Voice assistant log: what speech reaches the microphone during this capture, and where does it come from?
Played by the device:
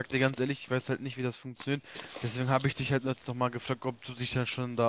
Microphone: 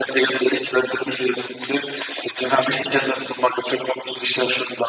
echo only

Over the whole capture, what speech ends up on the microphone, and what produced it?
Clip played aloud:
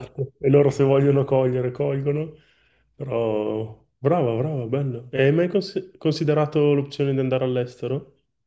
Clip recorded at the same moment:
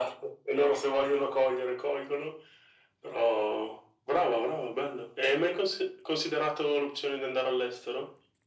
echo only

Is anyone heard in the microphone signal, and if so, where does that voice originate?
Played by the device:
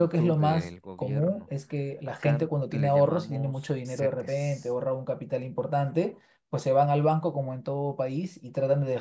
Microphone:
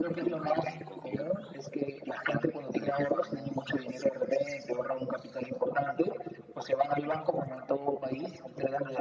echo only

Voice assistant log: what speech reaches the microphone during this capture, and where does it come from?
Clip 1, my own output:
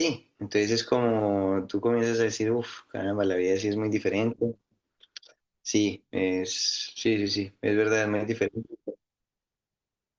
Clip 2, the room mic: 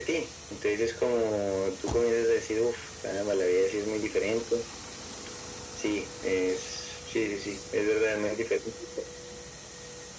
echo only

